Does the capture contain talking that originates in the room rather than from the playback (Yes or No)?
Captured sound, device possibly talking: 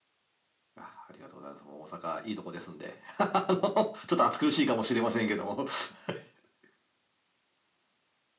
No